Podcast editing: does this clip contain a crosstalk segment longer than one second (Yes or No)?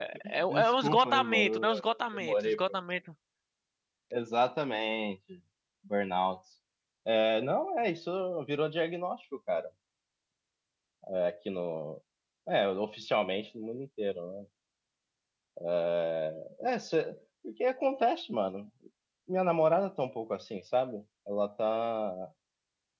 Yes